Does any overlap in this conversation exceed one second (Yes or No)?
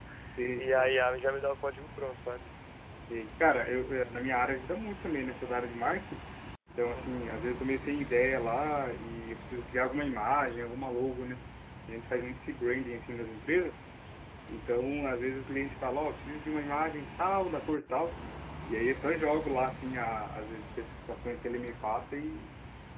No